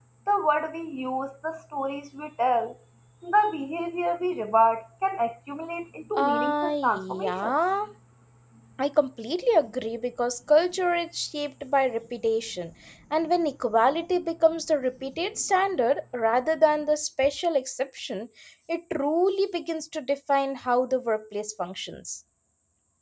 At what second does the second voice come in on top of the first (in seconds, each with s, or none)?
6.1 s